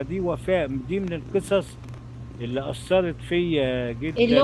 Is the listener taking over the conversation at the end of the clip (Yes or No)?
Yes